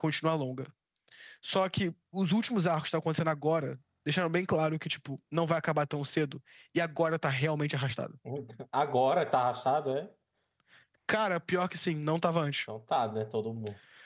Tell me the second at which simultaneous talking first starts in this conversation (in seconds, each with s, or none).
none